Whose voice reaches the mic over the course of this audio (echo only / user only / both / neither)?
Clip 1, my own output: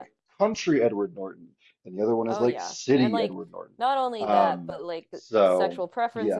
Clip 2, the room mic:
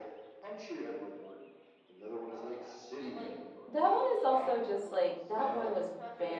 both